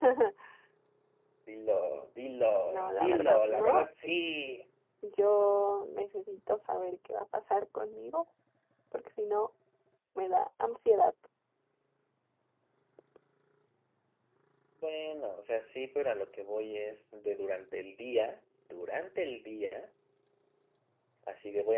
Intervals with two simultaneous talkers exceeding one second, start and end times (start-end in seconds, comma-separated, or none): 2.6-3.8